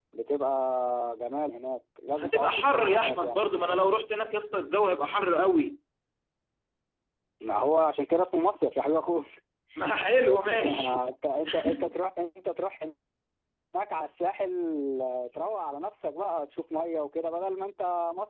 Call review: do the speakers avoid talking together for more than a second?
No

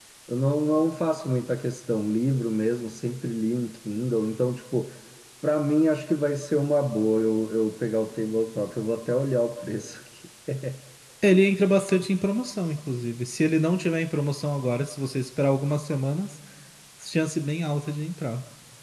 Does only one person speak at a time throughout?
Yes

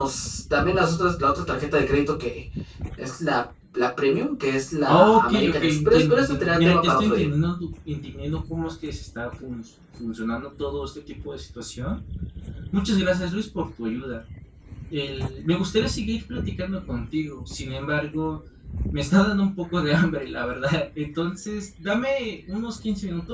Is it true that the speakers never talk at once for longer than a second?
No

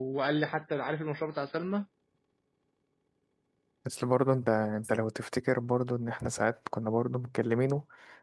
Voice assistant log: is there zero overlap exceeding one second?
Yes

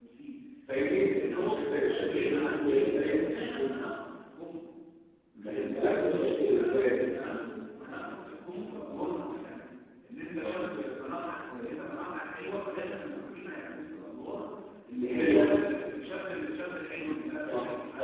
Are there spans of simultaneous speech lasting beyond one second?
Yes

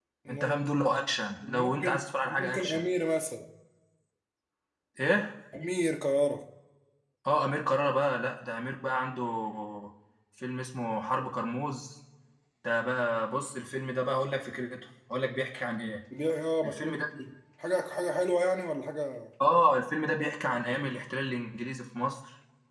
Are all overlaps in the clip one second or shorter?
No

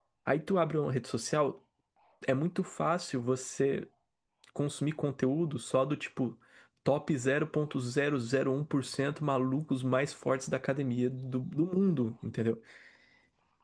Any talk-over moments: No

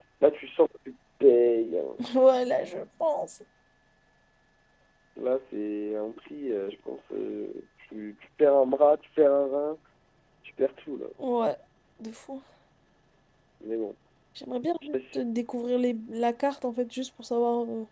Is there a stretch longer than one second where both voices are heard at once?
No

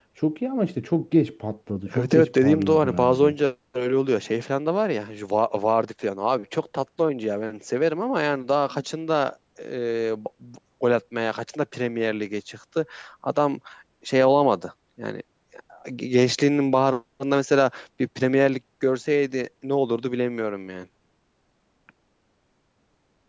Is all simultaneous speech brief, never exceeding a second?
No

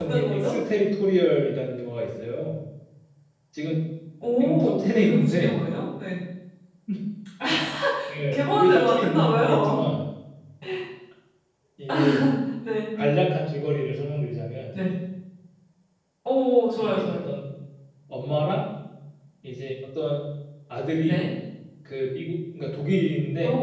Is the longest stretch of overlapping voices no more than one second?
No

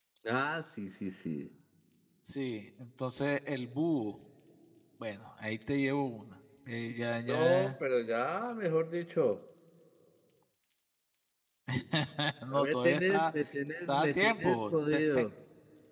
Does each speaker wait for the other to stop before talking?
No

